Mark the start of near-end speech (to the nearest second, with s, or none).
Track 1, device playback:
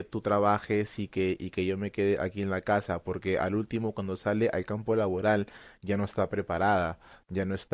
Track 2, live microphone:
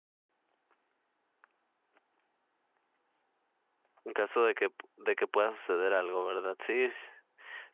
4 s